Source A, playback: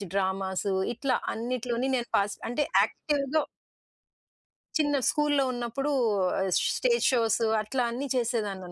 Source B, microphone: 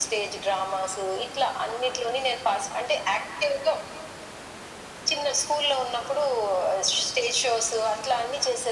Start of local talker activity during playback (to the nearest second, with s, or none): none